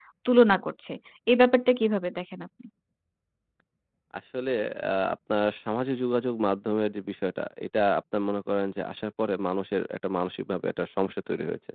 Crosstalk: none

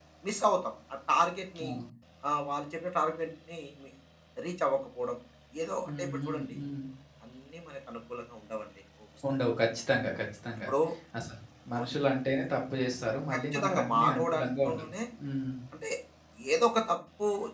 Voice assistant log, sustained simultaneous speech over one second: present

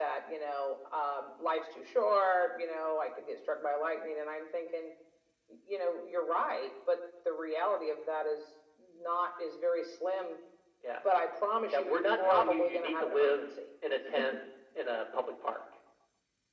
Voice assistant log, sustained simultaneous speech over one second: present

